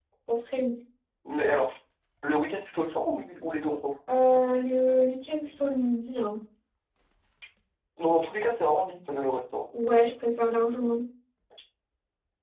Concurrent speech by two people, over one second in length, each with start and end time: none

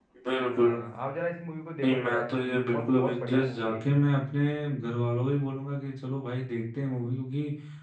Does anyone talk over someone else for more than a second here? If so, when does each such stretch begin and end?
1.8-4.0

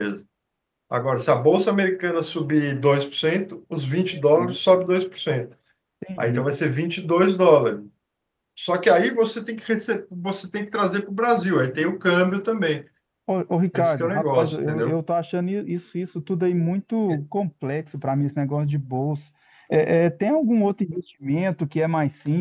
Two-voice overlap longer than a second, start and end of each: 13.7-15.0

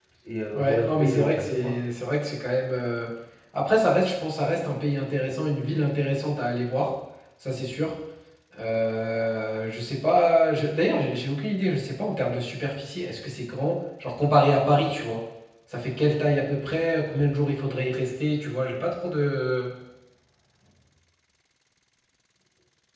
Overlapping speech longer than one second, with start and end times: 0.5-1.8

